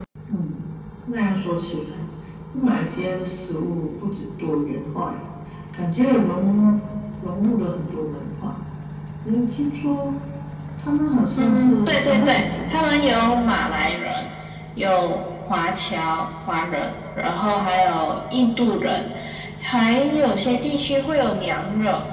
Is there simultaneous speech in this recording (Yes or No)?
Yes